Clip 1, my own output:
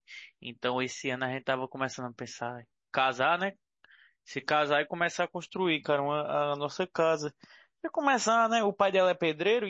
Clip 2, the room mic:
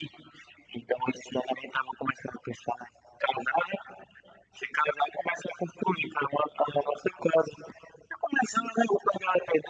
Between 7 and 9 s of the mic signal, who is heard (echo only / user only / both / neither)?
echo only